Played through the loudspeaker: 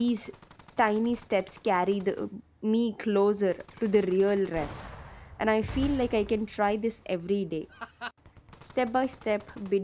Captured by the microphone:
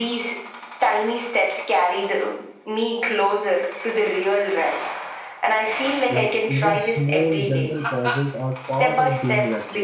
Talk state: both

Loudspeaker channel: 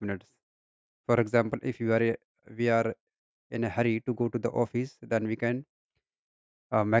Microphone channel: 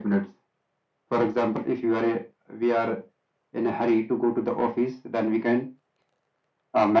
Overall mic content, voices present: echo only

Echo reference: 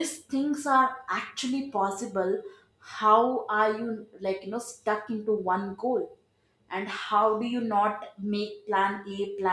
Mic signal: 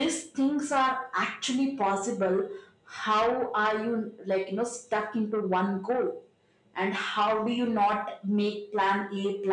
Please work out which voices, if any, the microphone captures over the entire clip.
echo only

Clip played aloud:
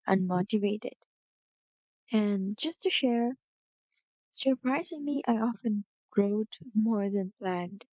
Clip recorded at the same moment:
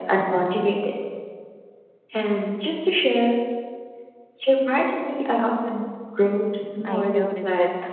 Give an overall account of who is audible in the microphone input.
both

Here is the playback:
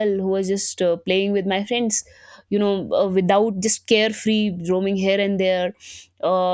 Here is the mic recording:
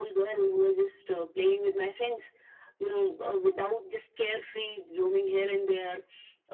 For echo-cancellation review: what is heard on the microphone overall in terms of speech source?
echo only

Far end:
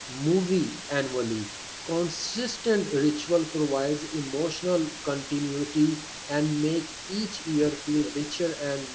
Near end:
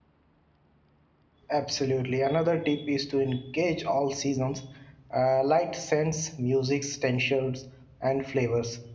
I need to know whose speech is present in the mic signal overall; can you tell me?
user only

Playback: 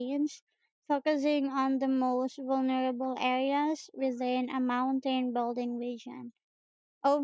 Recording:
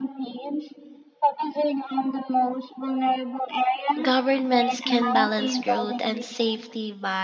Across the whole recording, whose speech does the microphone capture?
both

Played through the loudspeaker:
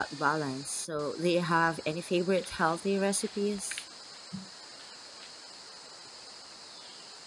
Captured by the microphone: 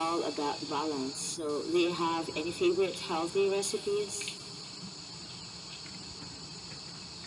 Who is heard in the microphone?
echo only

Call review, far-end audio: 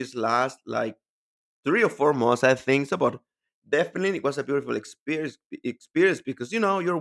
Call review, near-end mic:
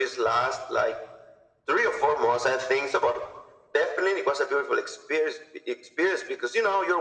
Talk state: echo only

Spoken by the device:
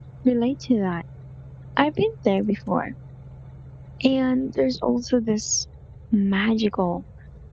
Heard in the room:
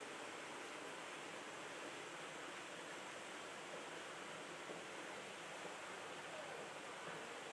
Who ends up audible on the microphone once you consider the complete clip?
neither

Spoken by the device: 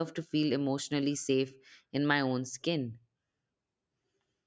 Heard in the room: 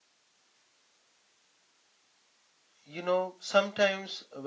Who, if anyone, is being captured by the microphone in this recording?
user only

